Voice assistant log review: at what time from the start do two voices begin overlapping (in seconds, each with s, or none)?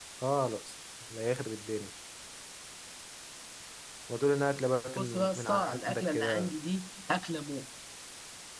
5.0 s